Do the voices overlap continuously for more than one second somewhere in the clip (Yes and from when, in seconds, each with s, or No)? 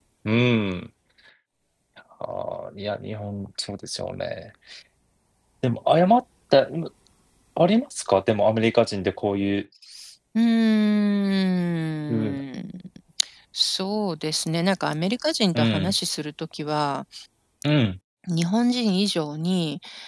No